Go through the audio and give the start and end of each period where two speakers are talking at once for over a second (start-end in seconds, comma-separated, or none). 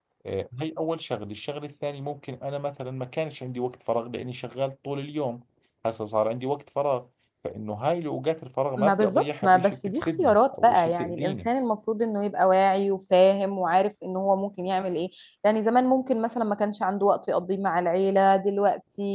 8.8-11.5